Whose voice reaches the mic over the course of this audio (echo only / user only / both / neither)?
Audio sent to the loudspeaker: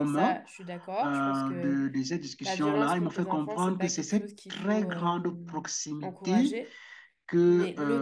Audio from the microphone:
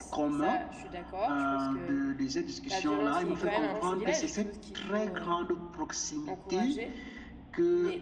both